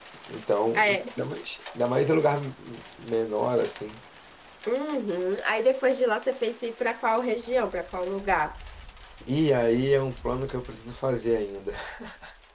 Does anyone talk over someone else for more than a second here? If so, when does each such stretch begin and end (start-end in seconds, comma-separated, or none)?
none